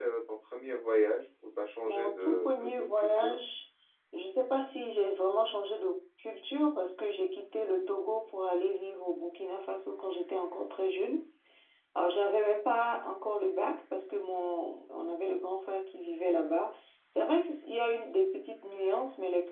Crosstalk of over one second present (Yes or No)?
Yes